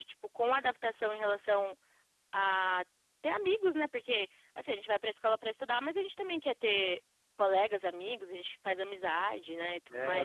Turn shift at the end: Yes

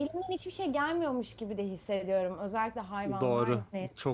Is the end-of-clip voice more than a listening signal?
Yes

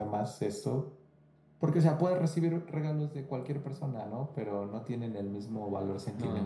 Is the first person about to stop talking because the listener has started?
Yes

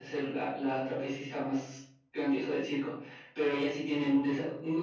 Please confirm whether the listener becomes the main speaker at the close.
No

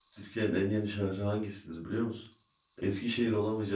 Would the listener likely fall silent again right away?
Yes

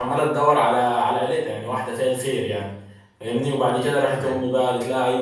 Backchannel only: Yes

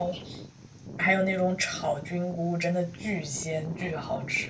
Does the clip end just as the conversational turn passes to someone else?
Yes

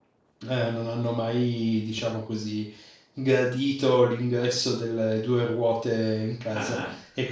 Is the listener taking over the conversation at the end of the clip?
No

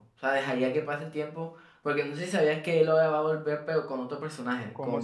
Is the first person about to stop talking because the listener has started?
Yes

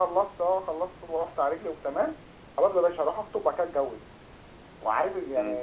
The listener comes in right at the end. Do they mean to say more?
Yes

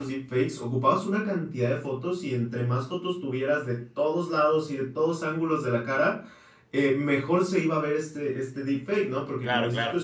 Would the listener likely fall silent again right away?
Yes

